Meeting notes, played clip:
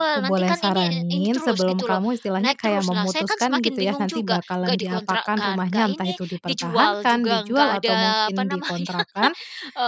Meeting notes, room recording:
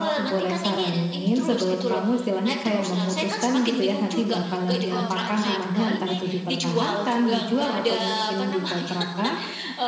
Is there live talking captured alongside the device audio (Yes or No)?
Yes